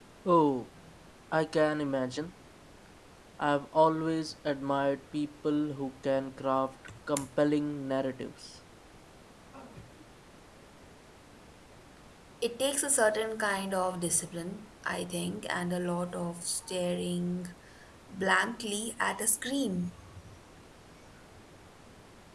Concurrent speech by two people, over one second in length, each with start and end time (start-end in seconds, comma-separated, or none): none